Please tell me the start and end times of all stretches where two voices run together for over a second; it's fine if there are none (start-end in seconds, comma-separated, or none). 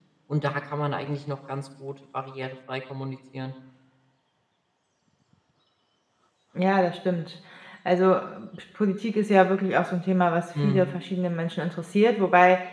none